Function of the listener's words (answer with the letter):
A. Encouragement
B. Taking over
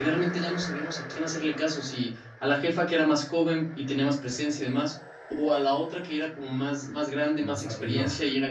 A